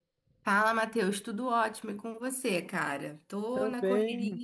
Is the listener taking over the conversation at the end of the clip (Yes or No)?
Yes